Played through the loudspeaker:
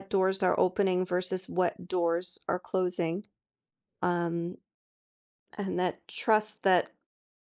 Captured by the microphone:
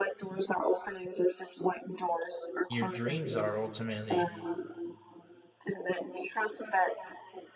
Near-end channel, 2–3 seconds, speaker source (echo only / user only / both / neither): both